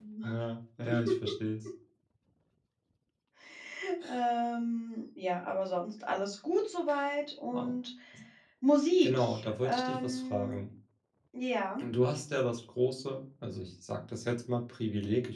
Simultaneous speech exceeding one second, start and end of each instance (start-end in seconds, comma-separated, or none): 9.0-10.6